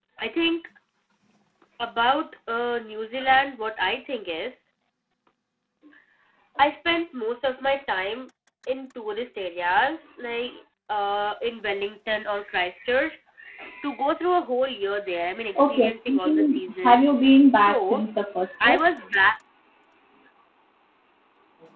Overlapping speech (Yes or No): Yes